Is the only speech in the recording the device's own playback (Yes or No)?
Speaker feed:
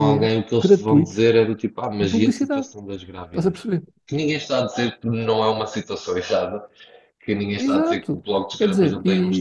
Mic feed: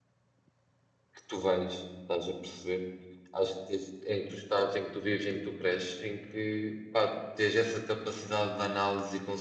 No